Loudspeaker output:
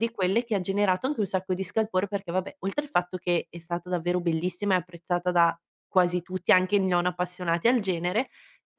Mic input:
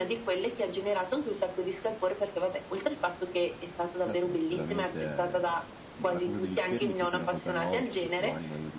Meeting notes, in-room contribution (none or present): present